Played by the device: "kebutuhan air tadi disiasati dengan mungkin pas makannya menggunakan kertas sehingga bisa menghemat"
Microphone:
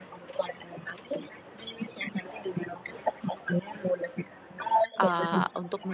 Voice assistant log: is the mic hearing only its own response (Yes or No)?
No